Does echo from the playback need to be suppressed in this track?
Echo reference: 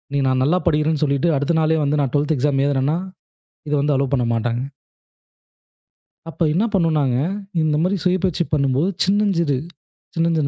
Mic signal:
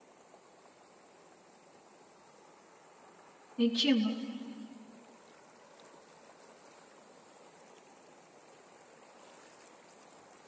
No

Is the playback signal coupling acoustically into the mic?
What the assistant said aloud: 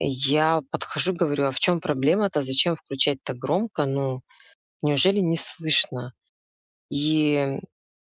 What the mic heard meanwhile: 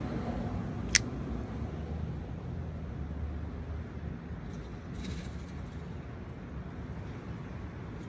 No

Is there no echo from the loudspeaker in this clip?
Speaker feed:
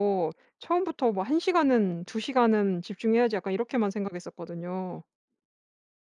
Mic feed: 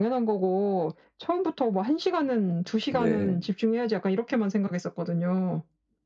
No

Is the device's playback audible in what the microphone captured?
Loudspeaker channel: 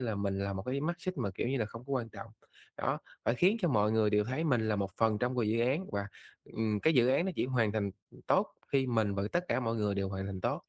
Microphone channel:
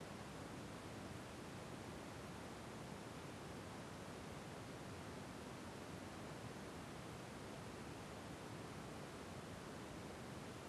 No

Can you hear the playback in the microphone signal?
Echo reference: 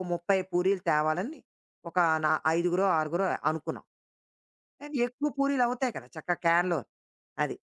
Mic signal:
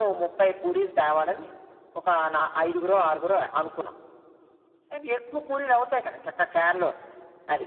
Yes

